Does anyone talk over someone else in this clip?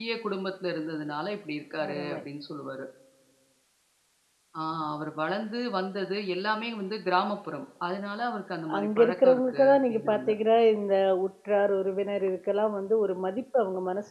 Yes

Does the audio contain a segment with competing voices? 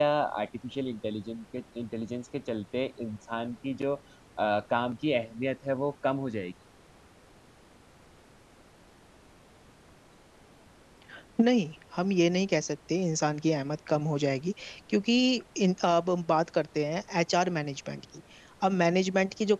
No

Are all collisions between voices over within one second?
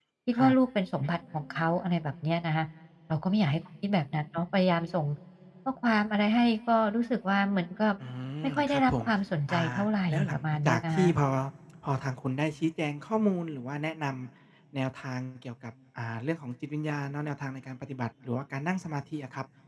No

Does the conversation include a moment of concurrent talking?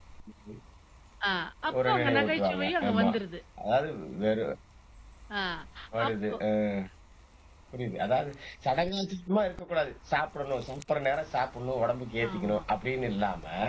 Yes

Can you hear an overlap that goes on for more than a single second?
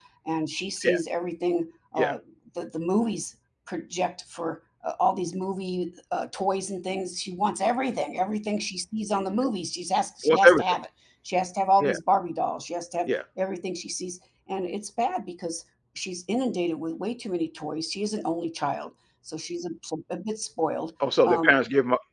No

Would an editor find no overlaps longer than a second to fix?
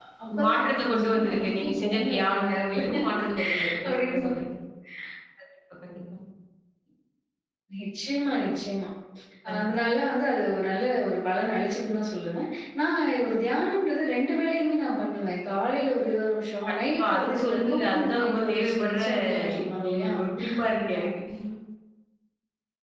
No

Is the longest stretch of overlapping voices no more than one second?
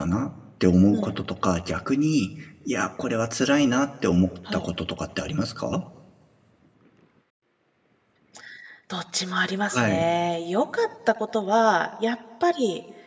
Yes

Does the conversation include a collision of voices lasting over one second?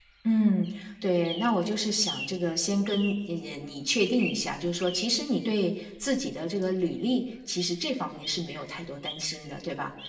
No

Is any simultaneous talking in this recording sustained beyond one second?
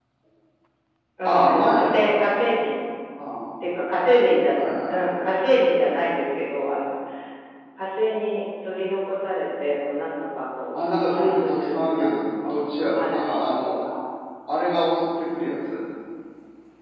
Yes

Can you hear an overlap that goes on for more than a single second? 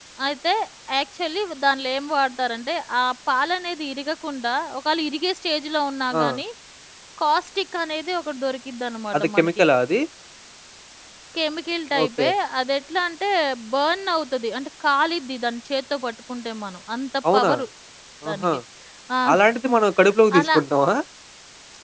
No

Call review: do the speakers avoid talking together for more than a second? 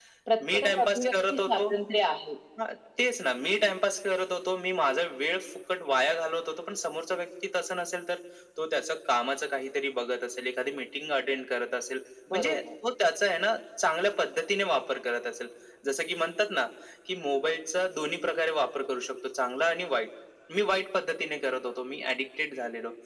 No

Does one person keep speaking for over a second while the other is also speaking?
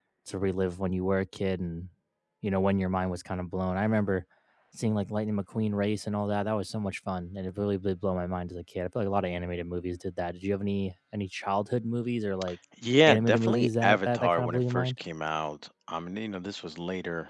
Yes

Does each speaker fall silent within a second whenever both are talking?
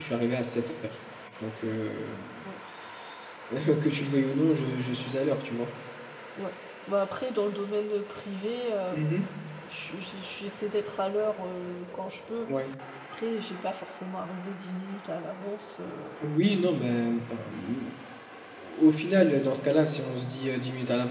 Yes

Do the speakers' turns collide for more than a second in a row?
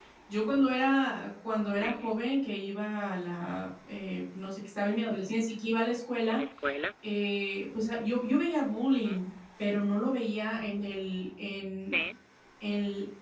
No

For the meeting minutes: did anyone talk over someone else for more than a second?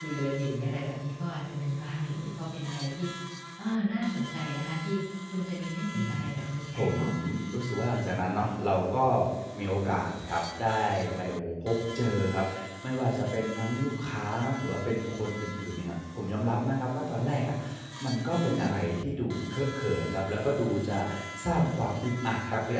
No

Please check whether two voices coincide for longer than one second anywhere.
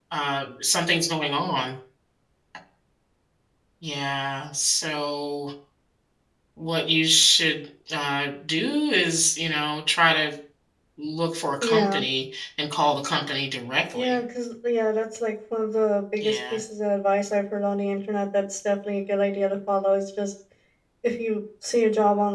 No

